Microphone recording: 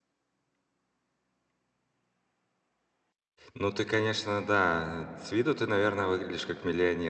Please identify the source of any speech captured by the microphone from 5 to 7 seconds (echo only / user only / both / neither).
user only